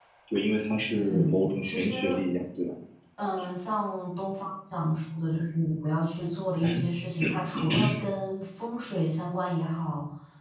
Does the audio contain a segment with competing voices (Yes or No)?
Yes